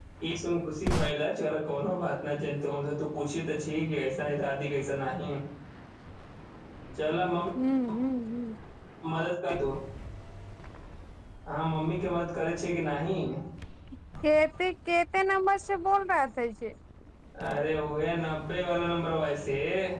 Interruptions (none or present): none